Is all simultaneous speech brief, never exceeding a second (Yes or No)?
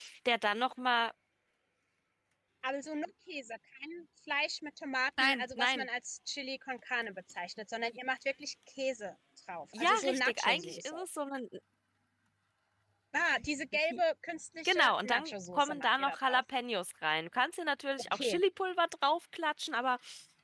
No